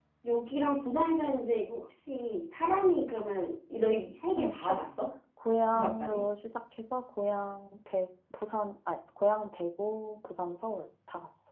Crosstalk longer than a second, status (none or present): none